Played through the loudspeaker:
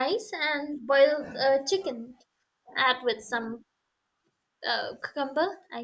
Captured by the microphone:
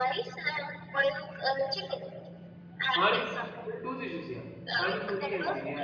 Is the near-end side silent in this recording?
No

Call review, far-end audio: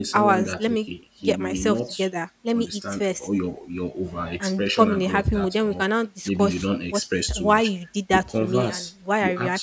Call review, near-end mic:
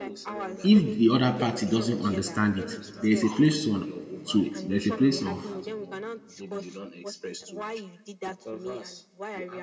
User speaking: Yes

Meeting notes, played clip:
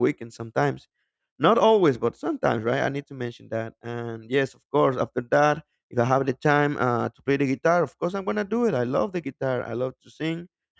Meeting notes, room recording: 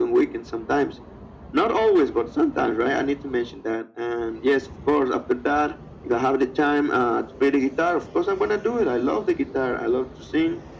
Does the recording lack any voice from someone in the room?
Yes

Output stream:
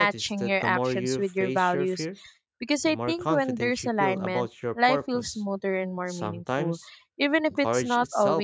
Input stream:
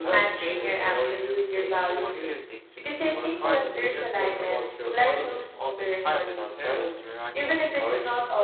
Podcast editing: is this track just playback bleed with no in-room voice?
No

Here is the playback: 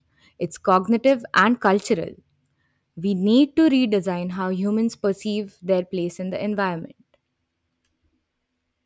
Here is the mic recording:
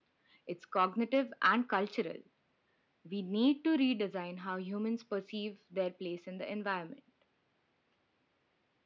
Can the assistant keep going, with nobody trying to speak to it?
Yes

